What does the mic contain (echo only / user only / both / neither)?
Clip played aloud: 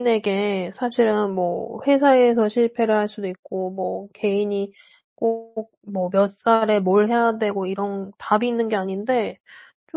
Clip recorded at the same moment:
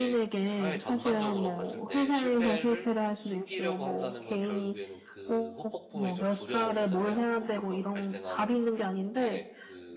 both